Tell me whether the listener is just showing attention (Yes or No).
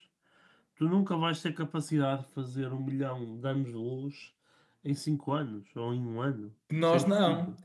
No